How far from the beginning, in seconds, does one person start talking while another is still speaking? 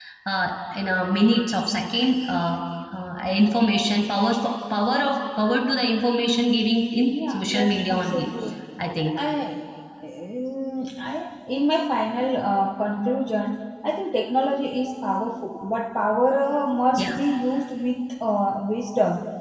7.0 s

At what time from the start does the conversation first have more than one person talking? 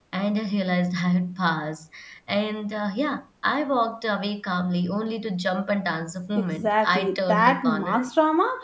6.3 s

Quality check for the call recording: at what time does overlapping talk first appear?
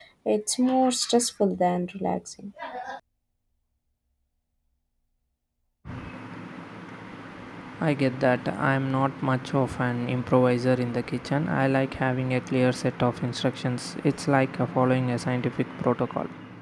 none

